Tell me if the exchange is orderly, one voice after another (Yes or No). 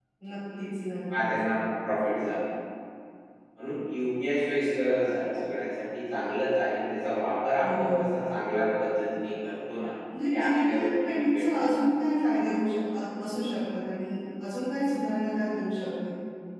No